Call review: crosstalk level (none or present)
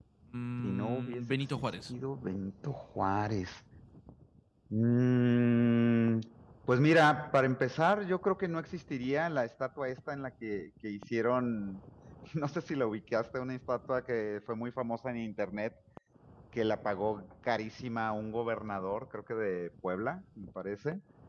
present